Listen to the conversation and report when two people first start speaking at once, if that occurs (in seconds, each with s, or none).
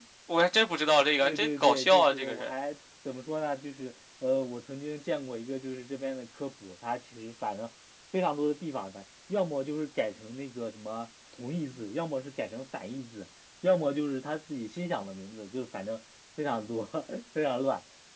1.2 s